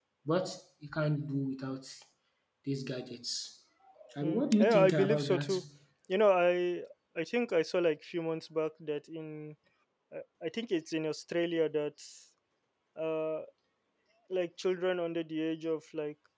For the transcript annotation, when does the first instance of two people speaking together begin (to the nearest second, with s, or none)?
4 s